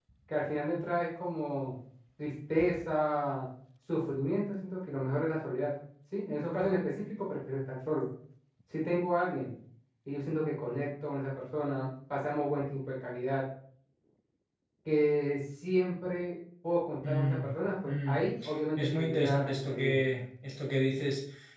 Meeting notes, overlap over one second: present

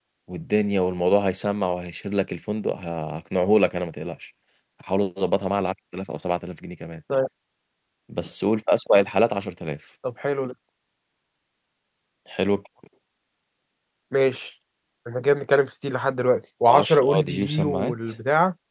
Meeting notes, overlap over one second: present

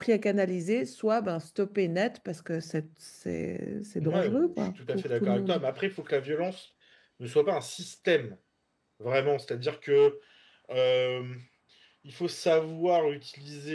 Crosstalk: present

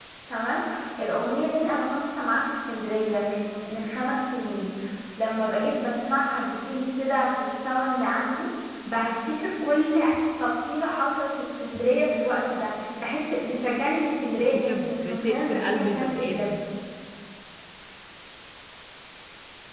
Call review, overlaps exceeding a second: present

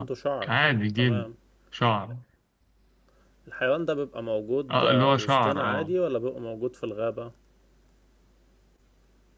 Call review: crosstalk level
present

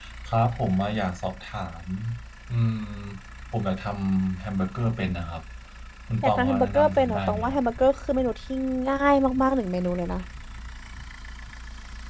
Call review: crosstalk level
present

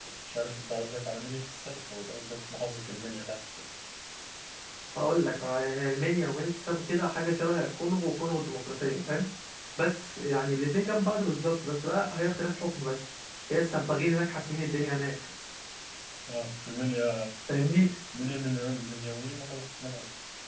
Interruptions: none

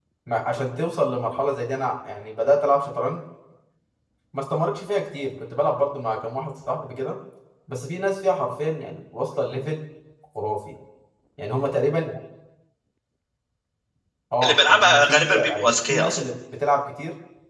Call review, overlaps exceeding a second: present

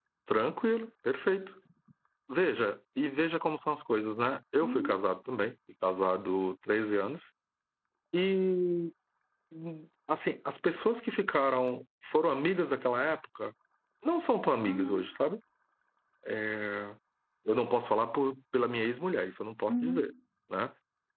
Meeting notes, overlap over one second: none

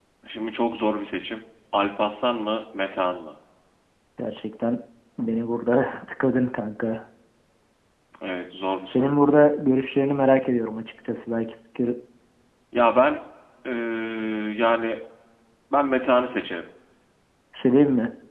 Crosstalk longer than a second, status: none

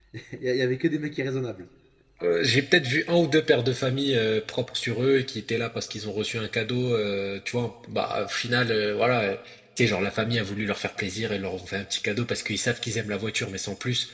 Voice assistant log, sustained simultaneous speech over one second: none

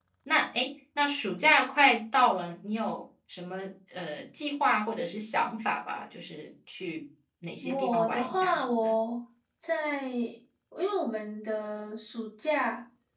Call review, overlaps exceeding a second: present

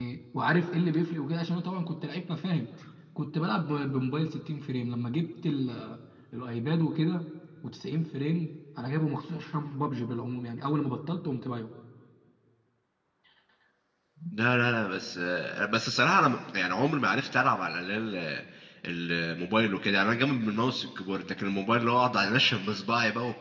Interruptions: none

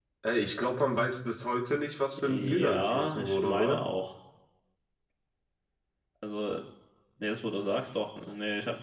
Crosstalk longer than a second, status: present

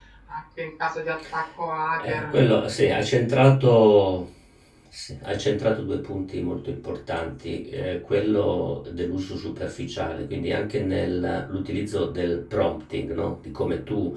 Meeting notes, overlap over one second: none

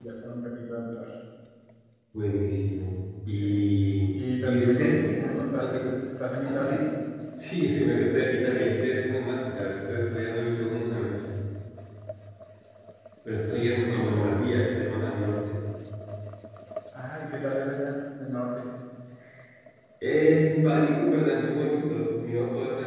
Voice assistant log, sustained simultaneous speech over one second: present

